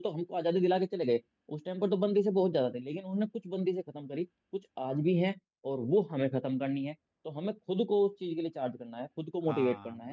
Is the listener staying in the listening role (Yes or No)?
Yes